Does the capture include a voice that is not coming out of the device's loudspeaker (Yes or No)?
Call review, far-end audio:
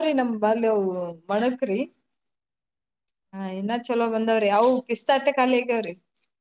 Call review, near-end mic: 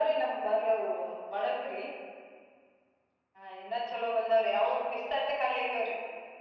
No